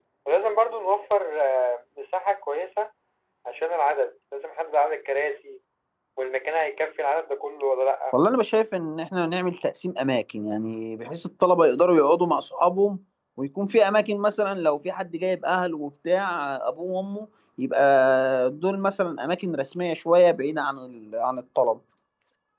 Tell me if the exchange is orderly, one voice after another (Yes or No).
Yes